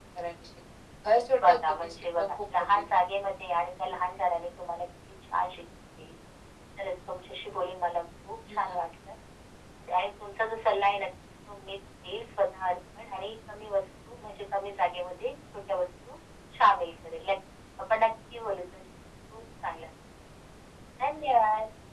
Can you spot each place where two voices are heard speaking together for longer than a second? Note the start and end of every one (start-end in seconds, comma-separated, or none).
1.5-2.9